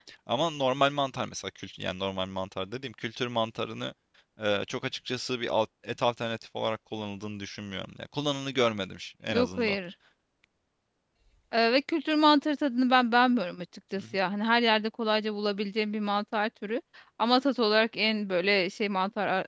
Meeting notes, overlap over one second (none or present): none